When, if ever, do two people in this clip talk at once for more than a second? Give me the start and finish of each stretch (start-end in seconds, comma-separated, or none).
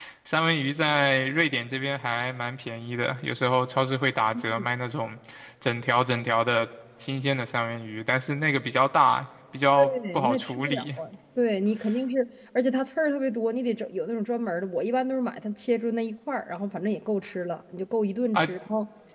9.8-11.0